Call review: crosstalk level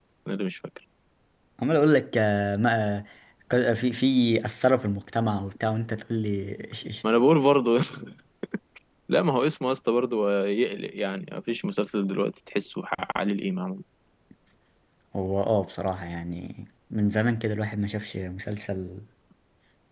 none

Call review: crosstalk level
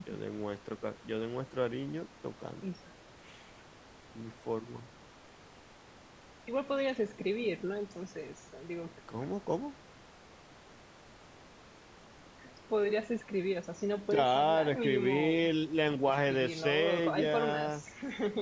present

